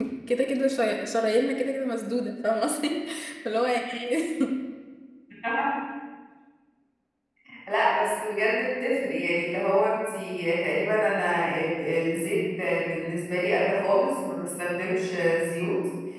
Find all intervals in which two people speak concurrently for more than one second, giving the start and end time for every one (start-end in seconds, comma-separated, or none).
none